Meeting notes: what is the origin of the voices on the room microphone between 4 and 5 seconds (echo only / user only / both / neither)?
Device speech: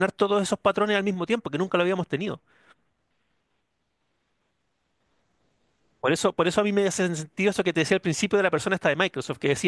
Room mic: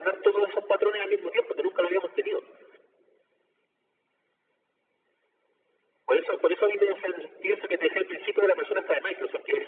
neither